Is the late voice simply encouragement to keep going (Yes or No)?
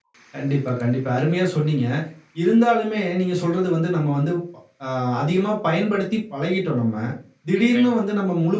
Yes